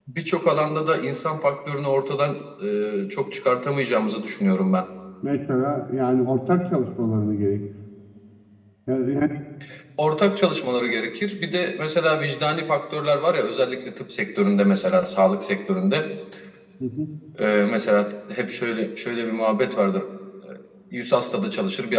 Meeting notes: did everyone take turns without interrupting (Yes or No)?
Yes